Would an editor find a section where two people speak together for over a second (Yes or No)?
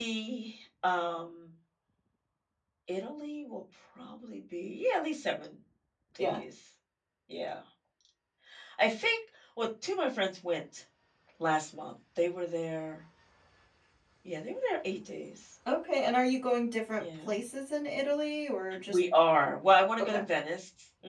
No